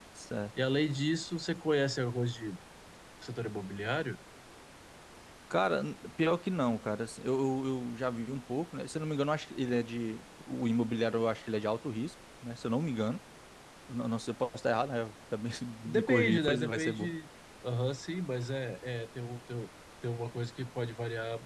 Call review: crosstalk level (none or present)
present